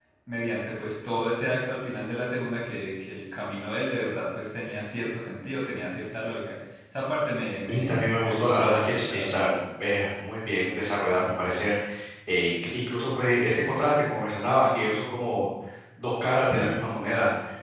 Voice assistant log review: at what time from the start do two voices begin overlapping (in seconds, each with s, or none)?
7.7 s